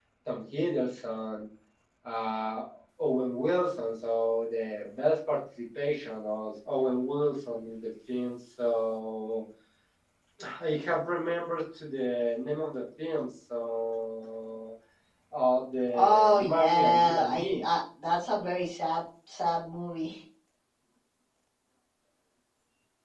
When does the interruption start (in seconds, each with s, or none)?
15.9 s